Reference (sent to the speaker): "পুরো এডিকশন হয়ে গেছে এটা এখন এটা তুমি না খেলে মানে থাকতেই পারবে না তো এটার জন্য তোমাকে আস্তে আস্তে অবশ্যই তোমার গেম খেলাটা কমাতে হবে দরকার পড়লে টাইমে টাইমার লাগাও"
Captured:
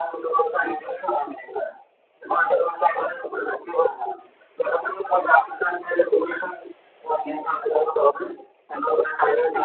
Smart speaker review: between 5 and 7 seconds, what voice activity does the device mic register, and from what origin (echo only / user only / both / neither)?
echo only